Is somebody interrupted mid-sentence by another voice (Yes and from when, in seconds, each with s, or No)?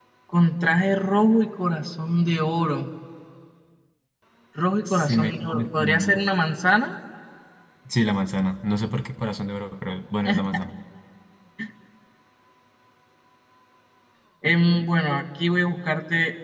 Yes, from 4.9 s